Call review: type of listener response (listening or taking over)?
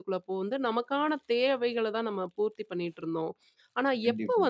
listening